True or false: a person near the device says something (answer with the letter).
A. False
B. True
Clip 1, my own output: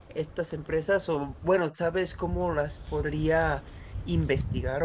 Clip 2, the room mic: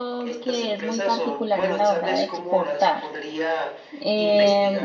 B